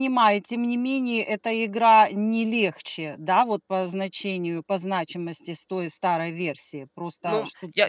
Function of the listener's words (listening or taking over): taking over